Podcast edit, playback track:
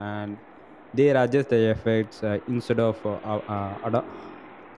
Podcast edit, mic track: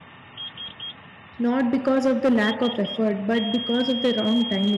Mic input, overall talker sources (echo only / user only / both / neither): user only